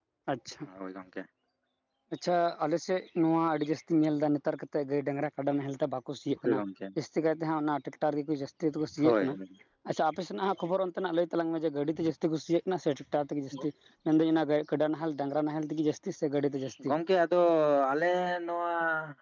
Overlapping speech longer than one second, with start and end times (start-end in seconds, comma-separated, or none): none